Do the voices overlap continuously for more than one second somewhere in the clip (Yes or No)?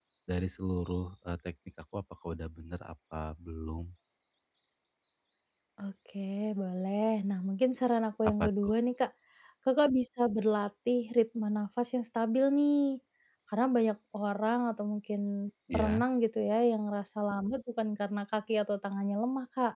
No